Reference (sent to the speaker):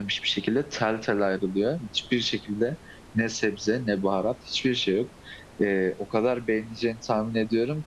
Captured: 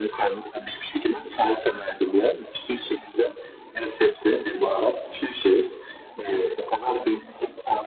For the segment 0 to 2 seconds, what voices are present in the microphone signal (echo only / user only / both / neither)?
echo only